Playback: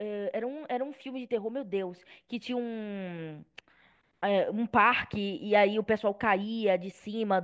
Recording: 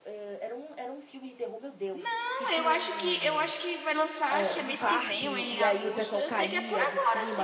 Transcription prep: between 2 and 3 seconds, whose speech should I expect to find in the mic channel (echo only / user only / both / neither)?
both